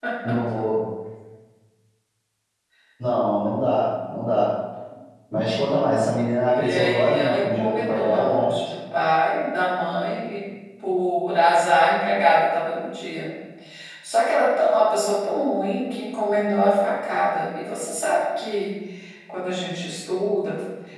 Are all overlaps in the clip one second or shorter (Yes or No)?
No